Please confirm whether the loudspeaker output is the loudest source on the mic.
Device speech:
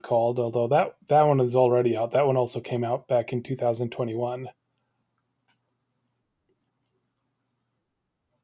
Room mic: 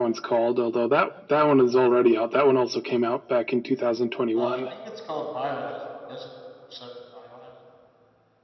Yes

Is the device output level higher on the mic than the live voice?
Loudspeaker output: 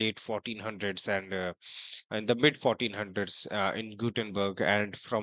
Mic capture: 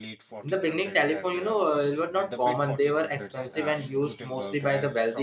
No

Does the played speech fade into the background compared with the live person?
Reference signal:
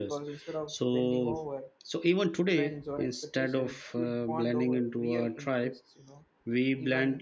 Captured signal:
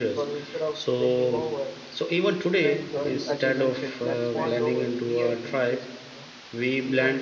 No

